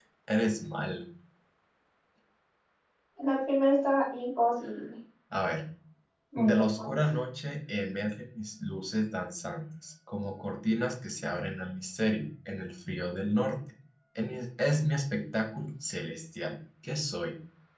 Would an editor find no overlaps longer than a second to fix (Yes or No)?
Yes